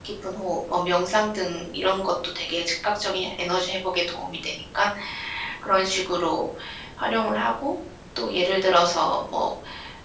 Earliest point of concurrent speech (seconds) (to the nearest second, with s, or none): none